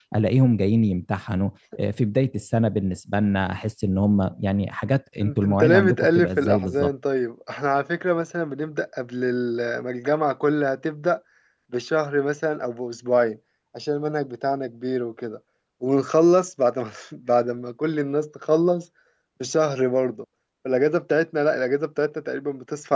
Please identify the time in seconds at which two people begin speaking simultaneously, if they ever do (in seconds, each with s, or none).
5.2 s